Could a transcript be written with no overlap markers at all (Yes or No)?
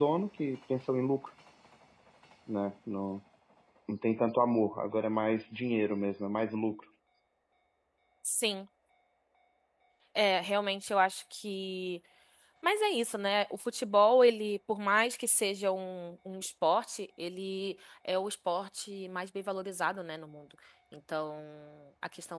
Yes